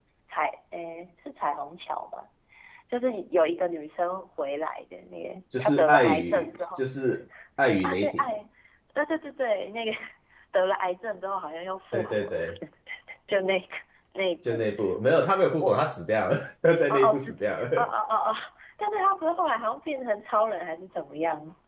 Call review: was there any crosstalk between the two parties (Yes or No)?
Yes